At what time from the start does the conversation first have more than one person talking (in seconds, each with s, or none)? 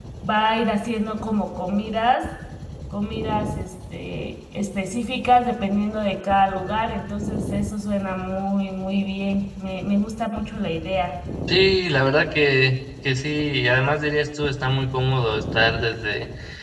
none